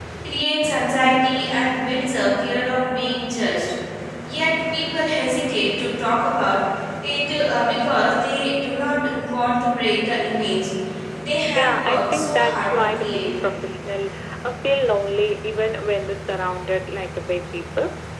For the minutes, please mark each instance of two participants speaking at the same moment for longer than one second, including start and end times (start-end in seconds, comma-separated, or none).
11.6-13.3